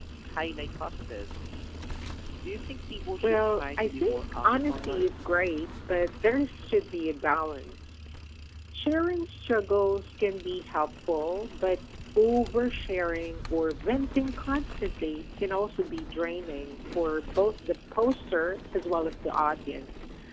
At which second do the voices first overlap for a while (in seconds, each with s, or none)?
3.2 s